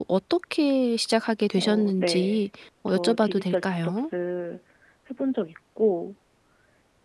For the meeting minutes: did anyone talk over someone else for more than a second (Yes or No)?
Yes